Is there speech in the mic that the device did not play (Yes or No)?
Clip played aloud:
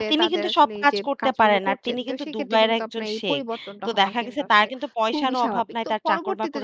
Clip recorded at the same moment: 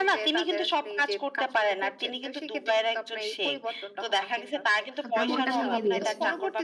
Yes